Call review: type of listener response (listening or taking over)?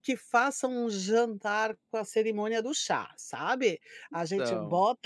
listening